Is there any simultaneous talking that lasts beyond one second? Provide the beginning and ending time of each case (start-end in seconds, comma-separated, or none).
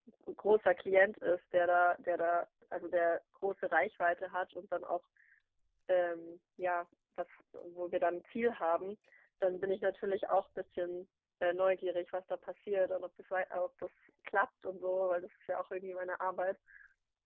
none